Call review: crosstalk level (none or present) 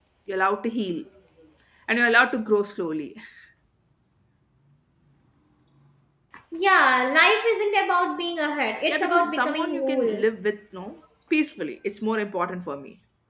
present